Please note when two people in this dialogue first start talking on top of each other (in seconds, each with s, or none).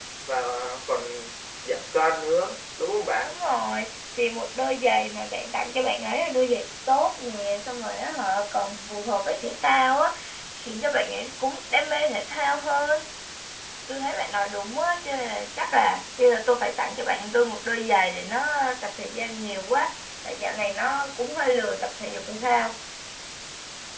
none